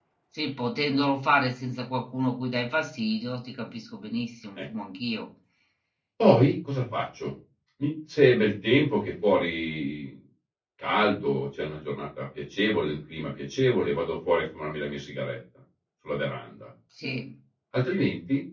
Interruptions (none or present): none